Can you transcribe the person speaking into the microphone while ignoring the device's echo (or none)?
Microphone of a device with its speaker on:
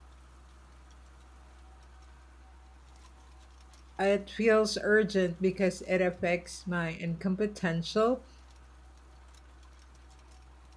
It feels urgent because it affects my income potential,